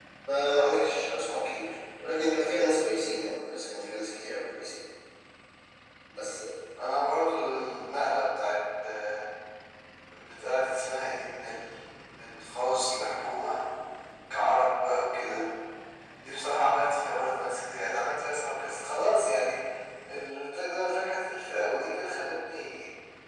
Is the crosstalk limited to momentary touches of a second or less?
Yes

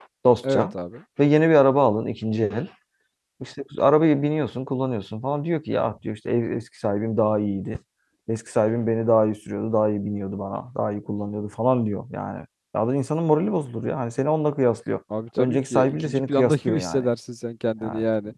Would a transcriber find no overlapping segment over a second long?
No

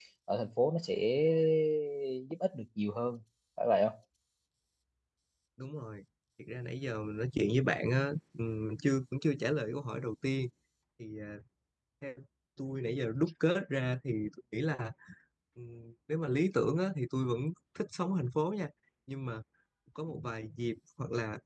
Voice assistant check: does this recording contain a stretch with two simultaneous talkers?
No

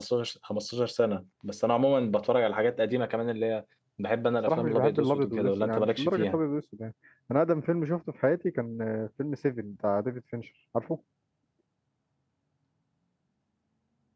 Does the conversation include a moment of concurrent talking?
Yes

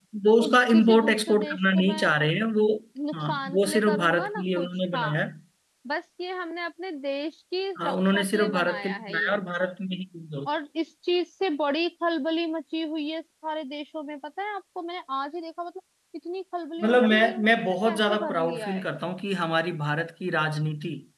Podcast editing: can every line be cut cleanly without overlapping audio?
No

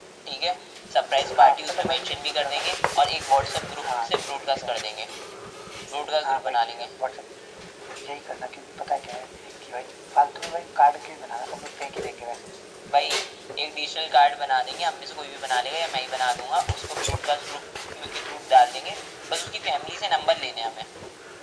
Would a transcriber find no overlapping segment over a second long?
No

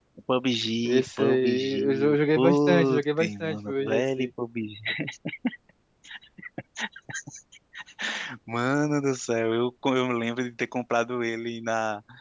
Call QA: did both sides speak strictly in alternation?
No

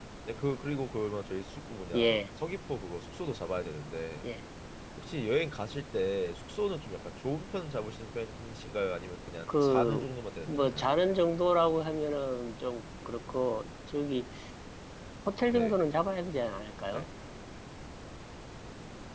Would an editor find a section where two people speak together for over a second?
No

